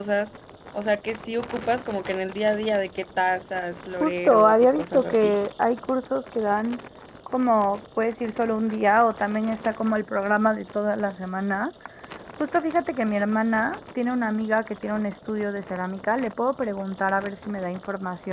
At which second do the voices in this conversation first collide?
4.0 s

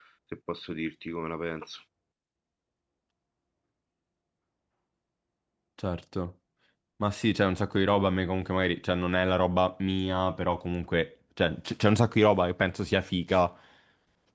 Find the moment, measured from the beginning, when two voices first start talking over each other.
none

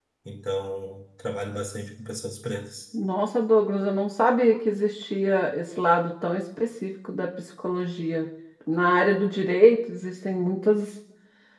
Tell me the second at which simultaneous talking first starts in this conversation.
none

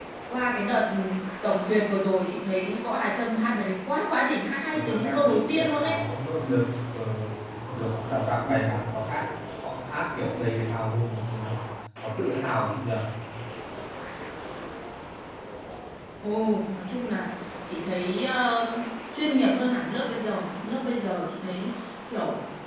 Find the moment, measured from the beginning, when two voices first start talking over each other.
4.7 s

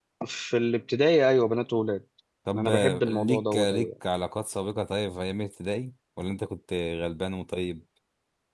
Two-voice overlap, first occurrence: 2.5 s

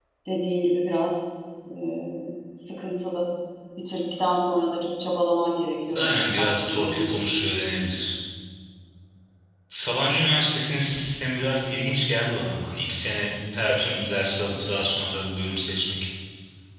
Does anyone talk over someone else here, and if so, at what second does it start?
5.9 s

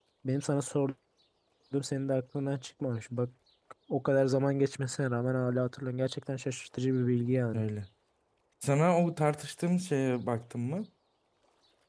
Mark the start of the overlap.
none

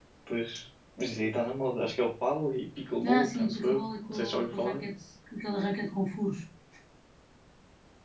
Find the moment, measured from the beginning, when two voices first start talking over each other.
3.0 s

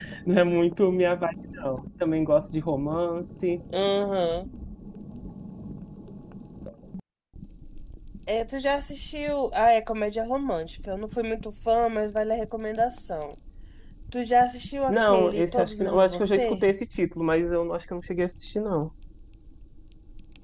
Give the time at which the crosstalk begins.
14.9 s

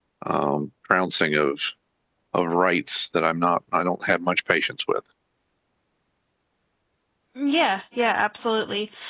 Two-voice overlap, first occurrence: none

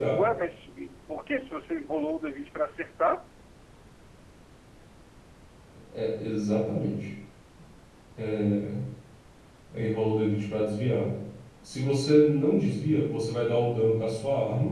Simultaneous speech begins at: none

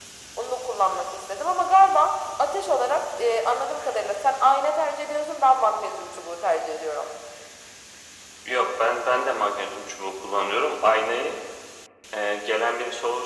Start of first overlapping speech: none

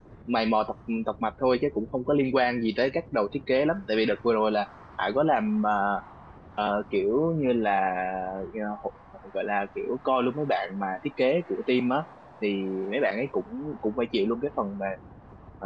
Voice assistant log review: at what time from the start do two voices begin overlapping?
none

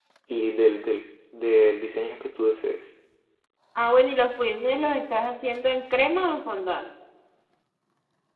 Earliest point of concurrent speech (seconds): none

